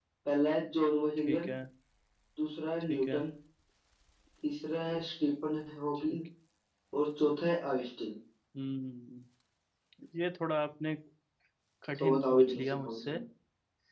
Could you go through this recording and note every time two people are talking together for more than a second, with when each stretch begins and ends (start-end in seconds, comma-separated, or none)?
12.0-13.2